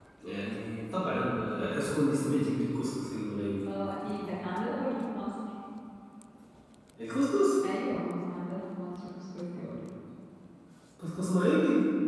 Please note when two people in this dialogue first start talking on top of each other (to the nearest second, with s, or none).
none